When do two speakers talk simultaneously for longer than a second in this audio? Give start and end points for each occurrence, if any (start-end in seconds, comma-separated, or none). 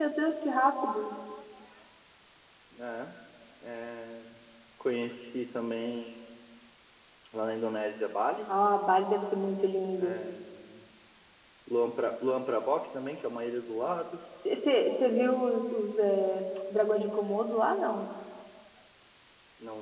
none